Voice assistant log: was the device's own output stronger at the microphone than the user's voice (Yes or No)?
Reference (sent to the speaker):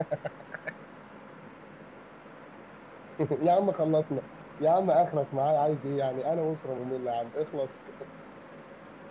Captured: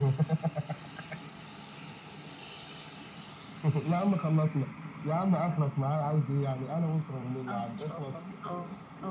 Yes